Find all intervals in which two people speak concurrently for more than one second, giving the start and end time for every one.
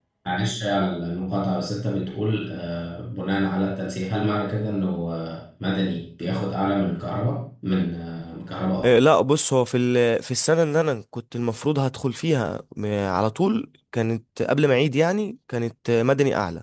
none

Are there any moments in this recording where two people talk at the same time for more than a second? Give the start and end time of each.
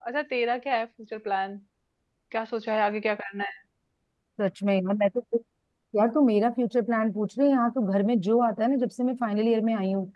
none

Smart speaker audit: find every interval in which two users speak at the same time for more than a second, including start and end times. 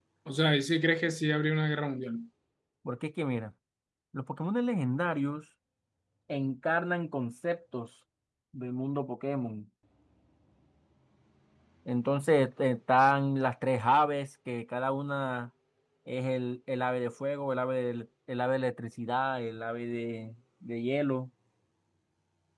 none

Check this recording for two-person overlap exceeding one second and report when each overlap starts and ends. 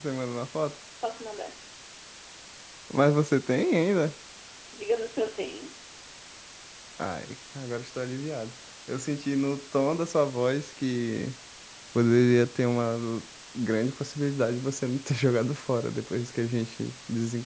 none

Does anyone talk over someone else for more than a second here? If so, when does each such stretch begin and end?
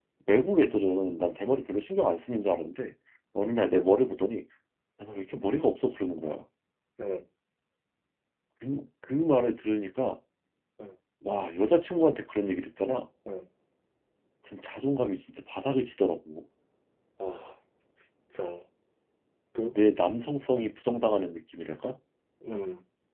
none

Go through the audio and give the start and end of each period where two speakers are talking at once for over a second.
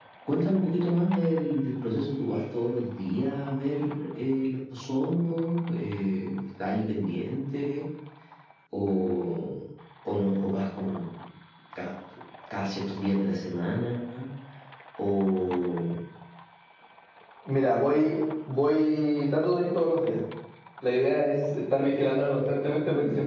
none

